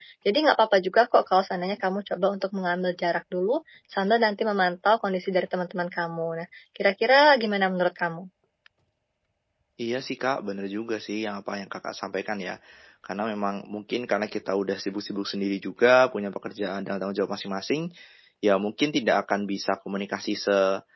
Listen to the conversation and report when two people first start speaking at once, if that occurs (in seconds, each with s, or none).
none